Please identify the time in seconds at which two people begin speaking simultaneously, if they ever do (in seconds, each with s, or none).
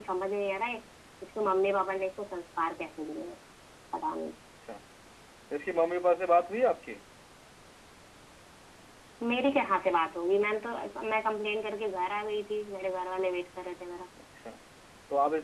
none